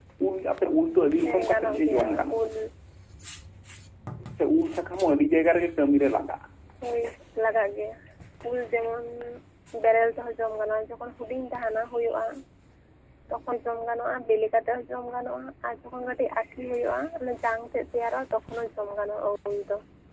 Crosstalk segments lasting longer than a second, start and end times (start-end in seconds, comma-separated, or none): 1.2-2.5